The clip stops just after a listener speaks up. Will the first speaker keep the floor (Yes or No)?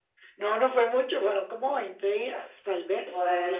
Yes